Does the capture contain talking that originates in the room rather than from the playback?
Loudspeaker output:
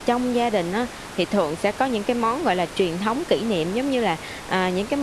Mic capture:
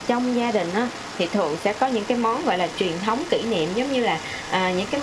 No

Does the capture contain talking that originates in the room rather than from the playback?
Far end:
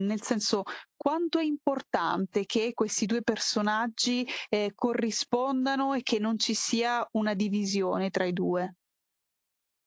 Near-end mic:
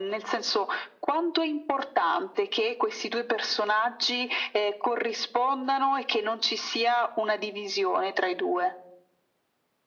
No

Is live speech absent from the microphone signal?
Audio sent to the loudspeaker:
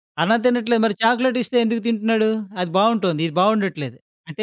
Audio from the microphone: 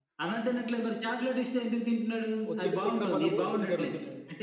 No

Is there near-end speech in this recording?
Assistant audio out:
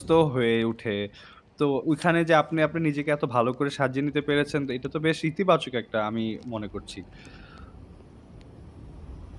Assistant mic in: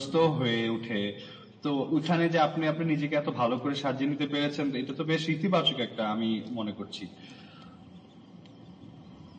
No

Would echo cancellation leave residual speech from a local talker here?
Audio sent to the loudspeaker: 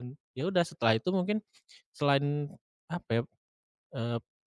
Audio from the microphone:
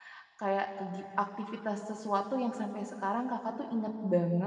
Yes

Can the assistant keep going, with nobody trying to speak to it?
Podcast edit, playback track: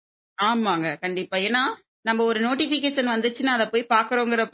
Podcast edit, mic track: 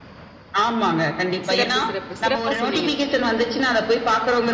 No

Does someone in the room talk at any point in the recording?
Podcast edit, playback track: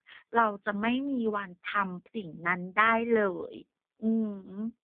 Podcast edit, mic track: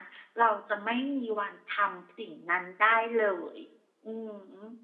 No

